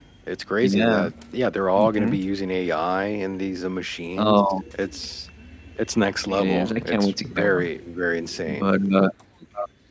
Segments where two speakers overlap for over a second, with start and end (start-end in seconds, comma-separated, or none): 6.3-7.7